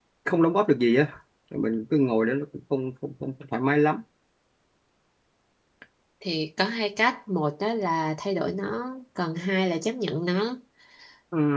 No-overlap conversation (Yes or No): Yes